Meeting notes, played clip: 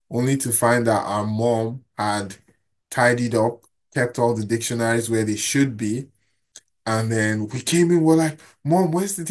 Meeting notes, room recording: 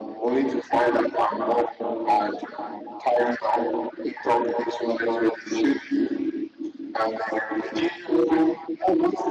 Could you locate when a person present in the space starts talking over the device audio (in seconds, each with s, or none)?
none